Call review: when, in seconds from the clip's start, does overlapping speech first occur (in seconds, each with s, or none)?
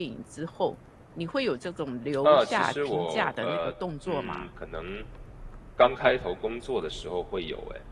2.2 s